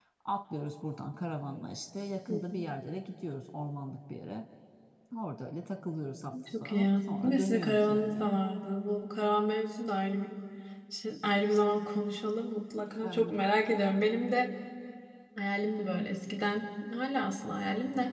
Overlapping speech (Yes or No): Yes